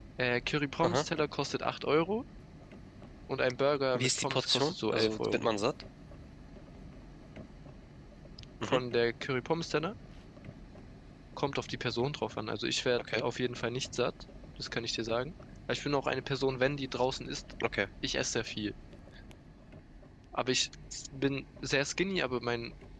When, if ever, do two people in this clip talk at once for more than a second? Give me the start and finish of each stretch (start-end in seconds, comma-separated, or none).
4.0-5.6